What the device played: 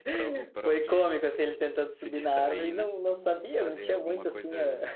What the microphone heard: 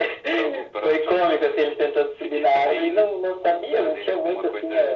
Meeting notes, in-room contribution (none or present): none